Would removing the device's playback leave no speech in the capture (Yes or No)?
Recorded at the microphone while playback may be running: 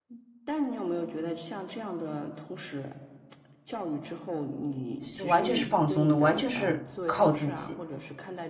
No